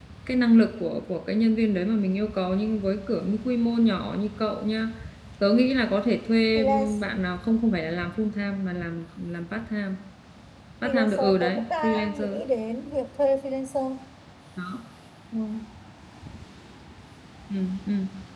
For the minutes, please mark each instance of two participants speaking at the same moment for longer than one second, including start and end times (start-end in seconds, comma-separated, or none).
10.8-12.4